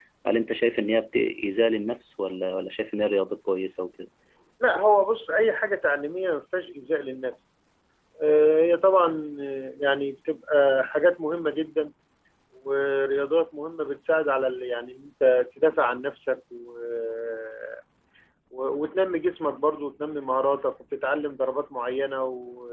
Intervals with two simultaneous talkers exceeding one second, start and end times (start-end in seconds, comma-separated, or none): none